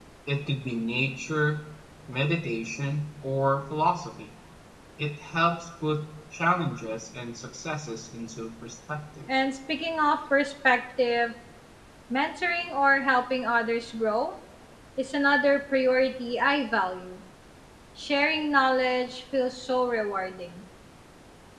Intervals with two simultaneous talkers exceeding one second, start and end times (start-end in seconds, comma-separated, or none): none